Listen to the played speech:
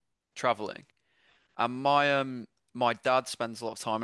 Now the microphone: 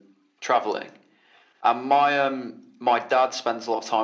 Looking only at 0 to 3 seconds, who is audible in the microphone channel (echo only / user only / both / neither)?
echo only